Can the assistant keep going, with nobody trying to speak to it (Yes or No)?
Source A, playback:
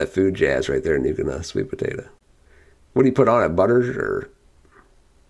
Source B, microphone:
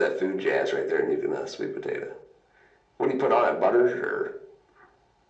Yes